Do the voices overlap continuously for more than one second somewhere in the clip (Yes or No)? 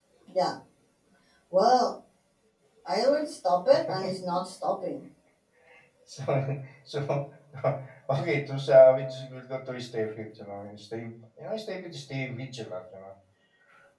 No